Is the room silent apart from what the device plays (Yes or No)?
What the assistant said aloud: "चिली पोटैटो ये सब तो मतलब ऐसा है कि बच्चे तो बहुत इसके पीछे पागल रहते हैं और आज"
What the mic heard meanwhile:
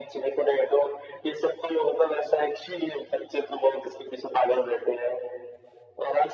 Yes